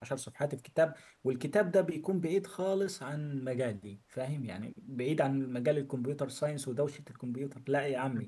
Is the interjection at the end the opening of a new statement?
Yes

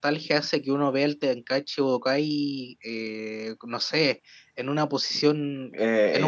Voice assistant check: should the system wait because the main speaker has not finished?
No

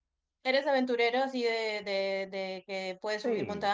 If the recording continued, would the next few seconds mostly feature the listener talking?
Yes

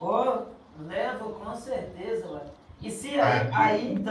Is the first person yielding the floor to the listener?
No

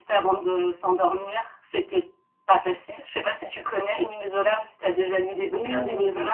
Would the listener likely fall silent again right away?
No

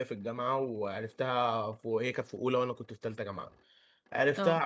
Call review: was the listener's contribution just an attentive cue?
Yes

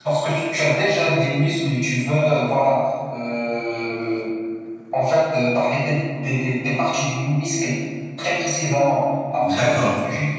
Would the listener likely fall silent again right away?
Yes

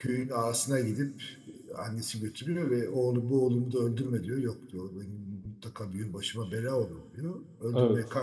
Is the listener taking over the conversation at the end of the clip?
No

